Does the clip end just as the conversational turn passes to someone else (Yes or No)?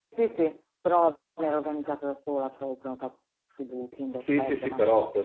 Yes